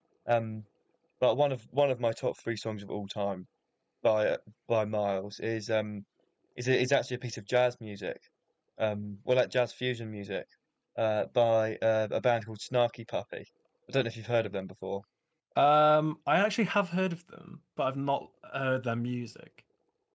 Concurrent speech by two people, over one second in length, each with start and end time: none

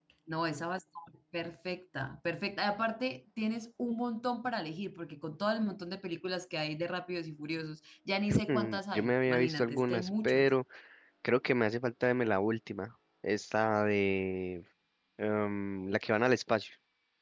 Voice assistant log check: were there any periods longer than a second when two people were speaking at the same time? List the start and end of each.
8.5-10.5

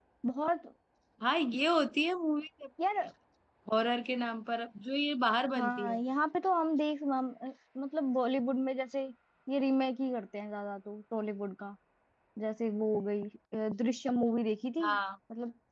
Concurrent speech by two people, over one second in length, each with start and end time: none

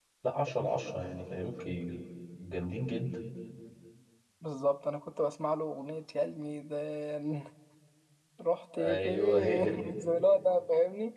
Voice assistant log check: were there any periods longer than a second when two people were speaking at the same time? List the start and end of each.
8.8-10.0

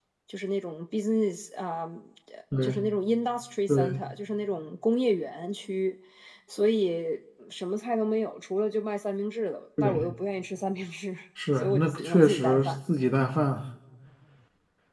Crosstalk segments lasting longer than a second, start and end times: 11.6-12.8

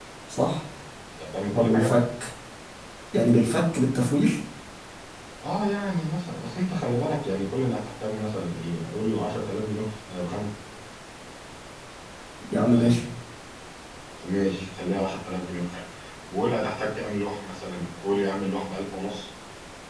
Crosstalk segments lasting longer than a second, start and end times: none

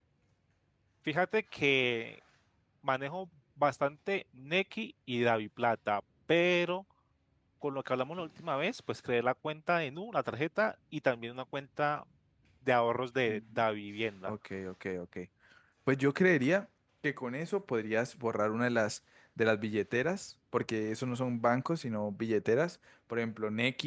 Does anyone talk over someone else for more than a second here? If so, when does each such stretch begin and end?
none

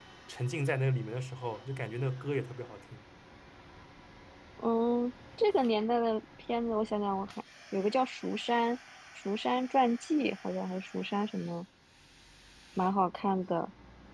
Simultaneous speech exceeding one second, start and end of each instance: none

